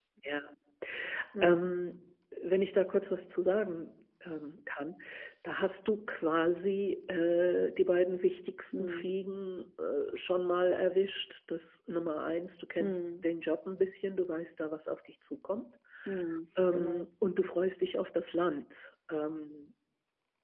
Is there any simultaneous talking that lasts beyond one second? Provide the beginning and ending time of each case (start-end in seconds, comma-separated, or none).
none